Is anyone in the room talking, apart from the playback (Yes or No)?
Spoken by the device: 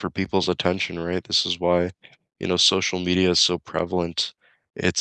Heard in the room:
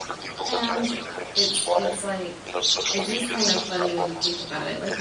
Yes